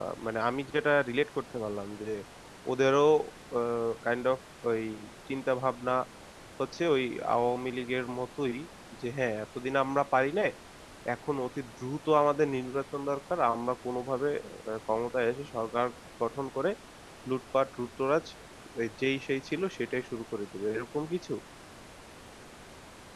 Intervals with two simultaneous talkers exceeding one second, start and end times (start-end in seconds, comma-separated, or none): none